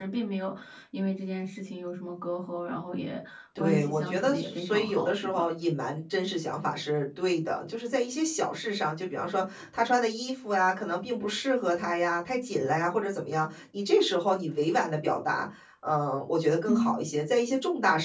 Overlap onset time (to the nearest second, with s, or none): 4 s